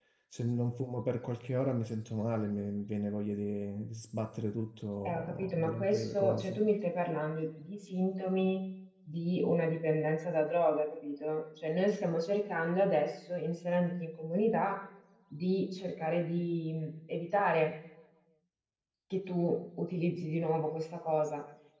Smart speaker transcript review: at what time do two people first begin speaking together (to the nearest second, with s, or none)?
5 s